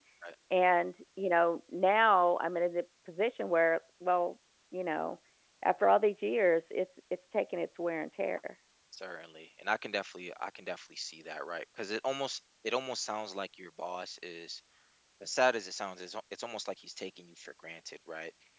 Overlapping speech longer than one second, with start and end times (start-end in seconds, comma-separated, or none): none